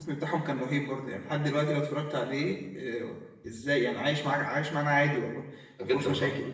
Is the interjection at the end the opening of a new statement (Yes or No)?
Yes